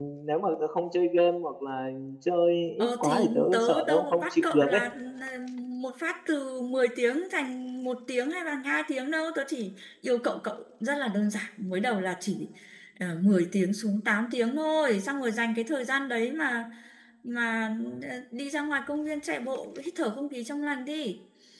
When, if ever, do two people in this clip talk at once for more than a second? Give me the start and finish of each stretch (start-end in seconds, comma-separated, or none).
2.8-4.8